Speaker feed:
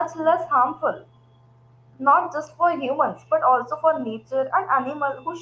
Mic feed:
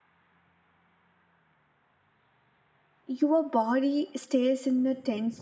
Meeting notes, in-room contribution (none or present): present